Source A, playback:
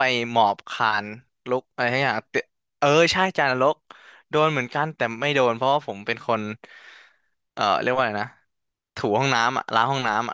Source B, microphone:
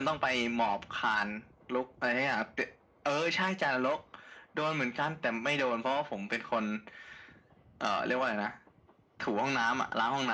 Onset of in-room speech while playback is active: none

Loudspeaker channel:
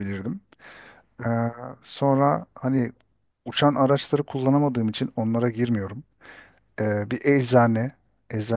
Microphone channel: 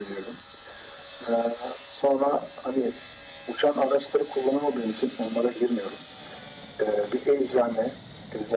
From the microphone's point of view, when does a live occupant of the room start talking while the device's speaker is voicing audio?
none

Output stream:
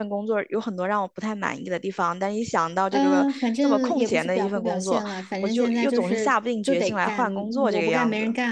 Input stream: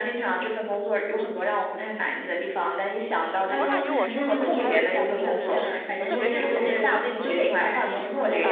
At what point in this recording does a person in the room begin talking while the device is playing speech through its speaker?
3.5 s

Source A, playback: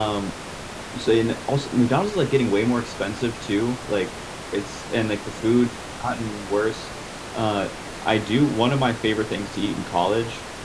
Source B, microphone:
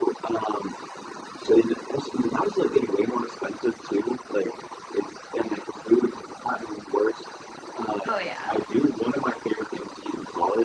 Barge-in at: 8.1 s

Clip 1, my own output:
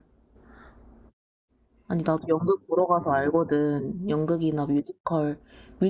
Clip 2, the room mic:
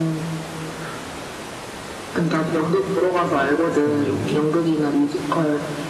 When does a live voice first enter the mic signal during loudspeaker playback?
3.8 s

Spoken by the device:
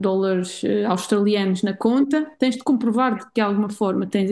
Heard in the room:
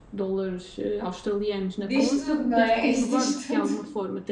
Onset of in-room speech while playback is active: 1.8 s

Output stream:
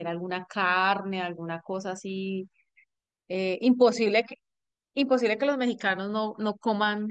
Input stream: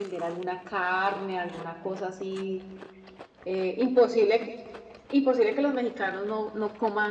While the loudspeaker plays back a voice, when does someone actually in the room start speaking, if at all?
none

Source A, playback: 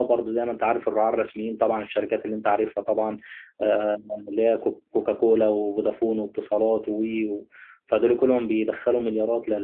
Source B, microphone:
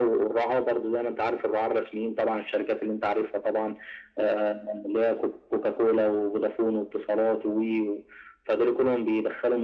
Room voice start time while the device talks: none

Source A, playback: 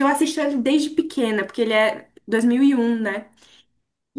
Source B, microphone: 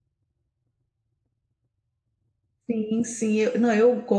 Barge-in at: 2.7 s

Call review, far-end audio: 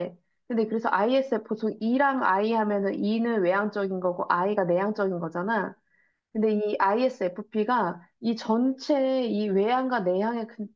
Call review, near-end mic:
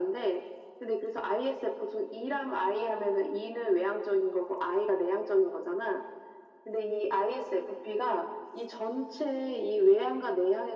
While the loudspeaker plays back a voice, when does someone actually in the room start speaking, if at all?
none

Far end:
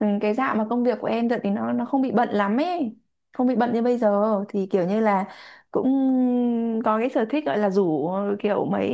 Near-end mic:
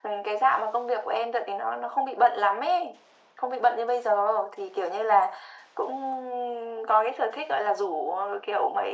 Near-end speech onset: none

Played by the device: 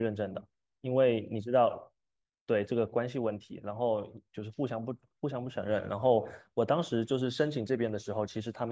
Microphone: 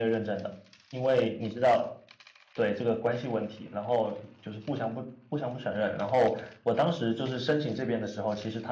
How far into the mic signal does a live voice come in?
none

